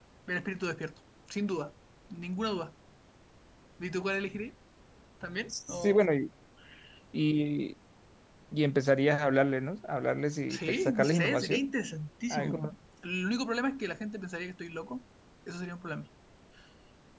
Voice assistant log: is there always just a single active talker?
No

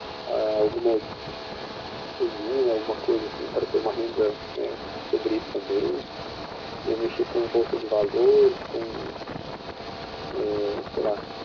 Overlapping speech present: No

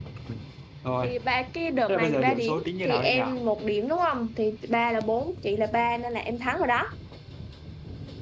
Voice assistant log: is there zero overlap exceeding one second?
No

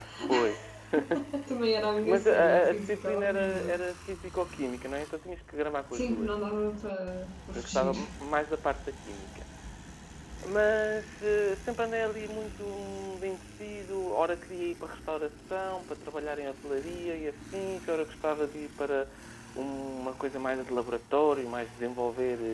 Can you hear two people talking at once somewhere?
Yes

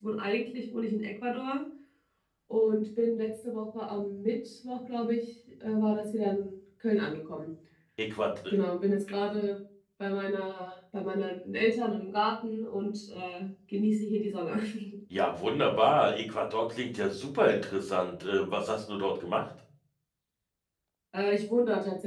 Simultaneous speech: No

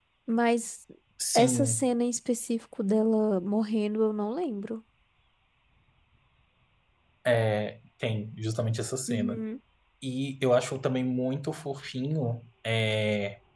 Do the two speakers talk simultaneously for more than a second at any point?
No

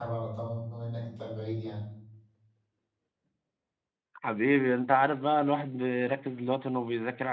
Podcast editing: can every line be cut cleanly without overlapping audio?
Yes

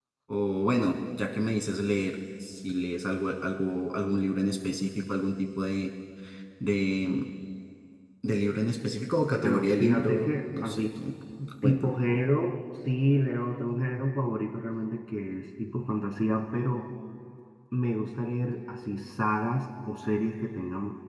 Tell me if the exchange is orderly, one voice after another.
No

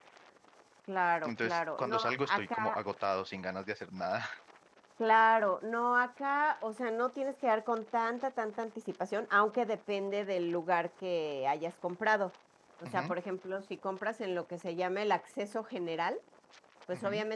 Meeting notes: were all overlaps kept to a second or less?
No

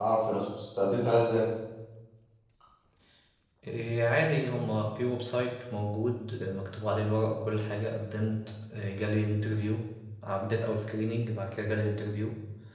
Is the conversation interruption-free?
Yes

